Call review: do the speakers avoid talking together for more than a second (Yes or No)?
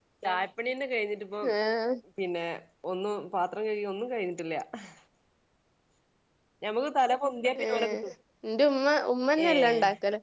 Yes